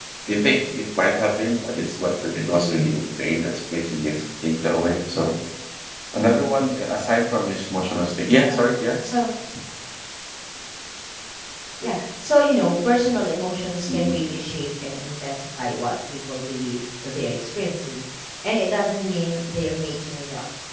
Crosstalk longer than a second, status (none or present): none